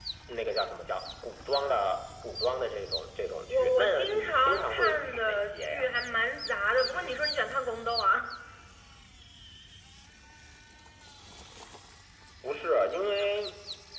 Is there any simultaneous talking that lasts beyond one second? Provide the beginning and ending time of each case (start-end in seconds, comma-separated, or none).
3.5-5.8